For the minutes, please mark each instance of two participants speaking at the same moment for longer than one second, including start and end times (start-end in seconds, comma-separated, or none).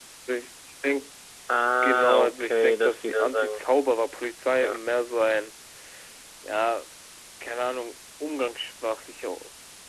1.8-3.6